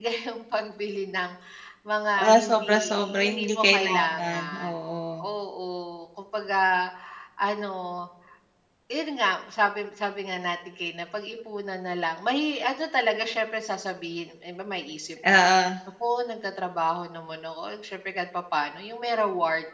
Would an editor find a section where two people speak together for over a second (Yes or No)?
Yes